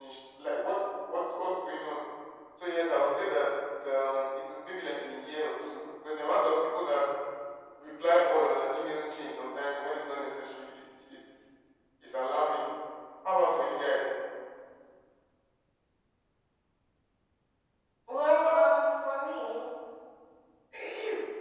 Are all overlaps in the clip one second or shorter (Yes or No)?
Yes